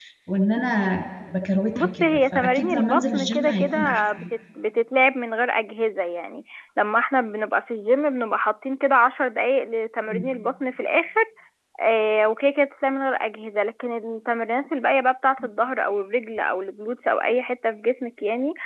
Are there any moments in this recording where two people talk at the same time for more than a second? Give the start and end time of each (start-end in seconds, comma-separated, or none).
1.8-4.2